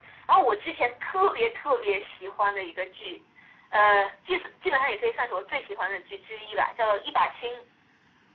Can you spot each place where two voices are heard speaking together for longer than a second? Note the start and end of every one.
none

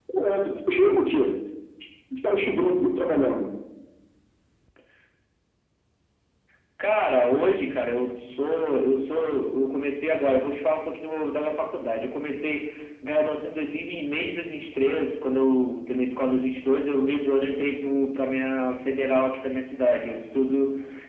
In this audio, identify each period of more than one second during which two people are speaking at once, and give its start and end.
none

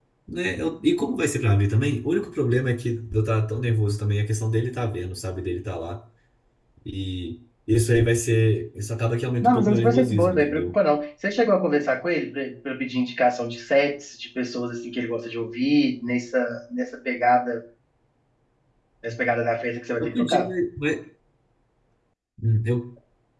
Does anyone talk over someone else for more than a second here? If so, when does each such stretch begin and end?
9.4-10.7

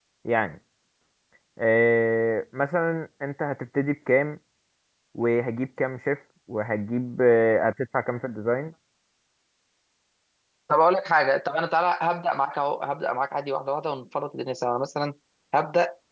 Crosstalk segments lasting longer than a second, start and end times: none

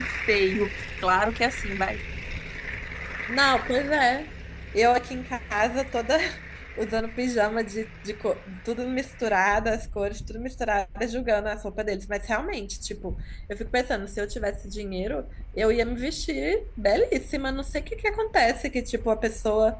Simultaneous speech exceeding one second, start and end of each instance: none

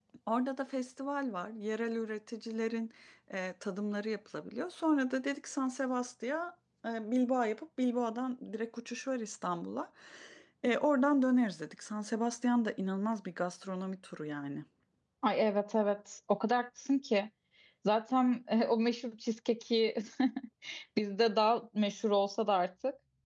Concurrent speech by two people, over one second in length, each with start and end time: none

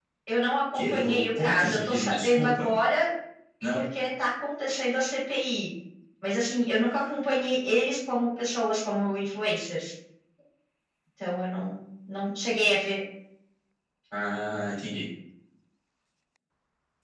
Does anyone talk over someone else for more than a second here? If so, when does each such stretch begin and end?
0.7-2.7

